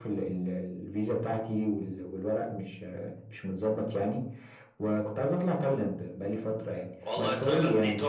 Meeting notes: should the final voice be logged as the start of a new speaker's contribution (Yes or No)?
Yes